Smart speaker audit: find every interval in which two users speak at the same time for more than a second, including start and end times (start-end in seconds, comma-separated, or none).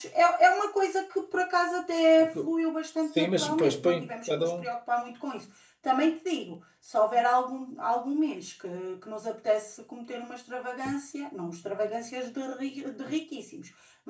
3.1-4.5